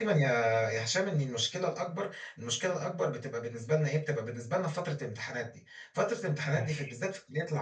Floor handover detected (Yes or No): No